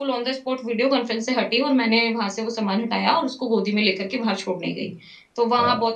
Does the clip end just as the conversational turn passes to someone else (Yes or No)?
No